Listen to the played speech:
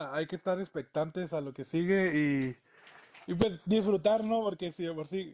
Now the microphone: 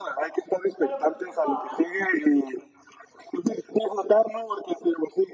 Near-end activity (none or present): present